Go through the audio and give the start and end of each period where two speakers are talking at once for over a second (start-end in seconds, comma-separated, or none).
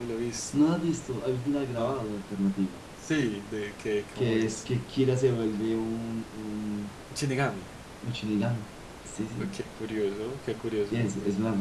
none